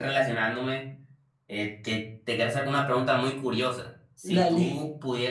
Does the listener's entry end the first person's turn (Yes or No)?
No